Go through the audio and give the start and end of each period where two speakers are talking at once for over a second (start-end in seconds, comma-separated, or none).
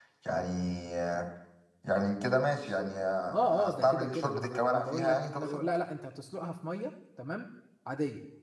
3.5-5.8